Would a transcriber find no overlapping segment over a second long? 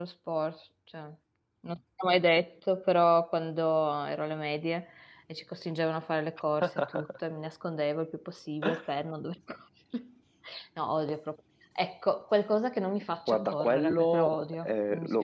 No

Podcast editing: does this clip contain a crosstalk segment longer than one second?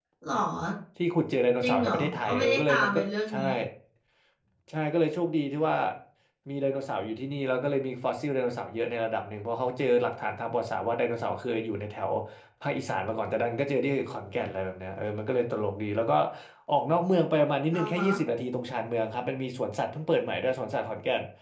Yes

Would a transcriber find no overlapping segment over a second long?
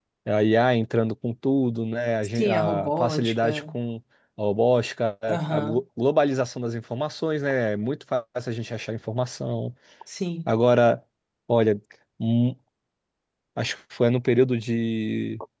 No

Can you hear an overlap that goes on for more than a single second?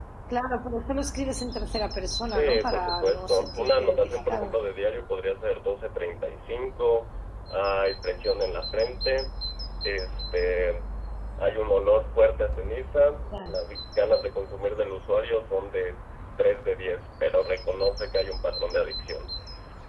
Yes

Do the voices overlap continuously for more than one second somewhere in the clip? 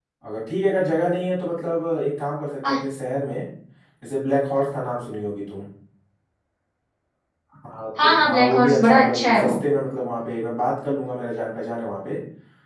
Yes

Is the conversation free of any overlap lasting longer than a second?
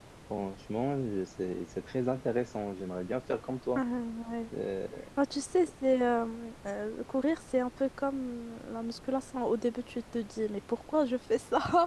Yes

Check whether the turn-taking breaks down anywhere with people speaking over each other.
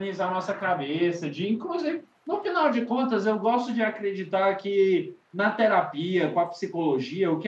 No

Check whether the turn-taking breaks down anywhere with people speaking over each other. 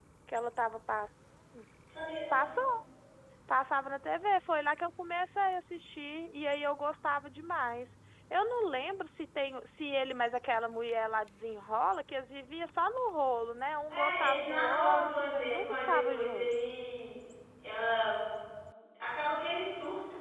Yes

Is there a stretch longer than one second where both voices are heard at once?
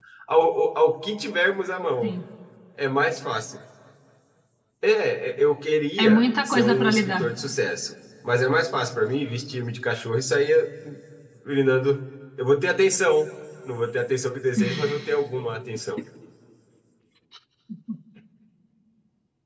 Yes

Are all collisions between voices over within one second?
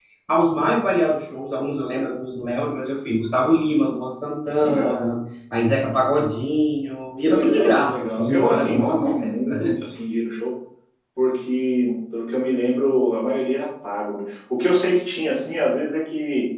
No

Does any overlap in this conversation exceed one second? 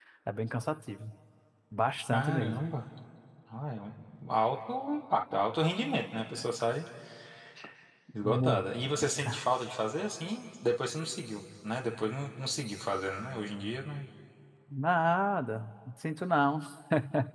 No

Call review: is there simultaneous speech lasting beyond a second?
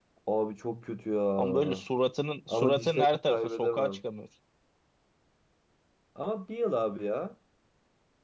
Yes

